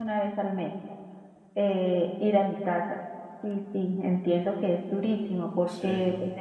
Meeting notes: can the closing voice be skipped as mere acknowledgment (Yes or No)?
Yes